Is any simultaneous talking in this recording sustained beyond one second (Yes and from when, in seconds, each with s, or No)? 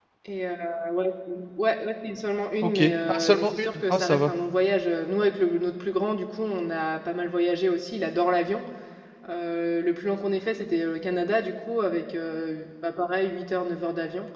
Yes, from 2.6 s